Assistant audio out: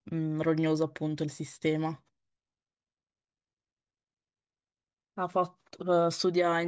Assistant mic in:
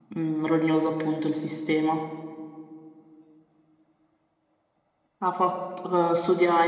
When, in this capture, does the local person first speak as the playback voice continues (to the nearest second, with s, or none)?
none